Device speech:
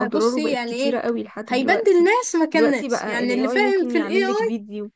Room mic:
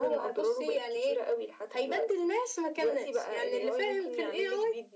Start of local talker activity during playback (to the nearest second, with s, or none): none